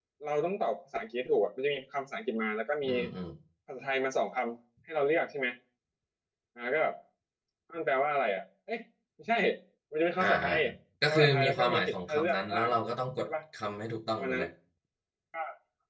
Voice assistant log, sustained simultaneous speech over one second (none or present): present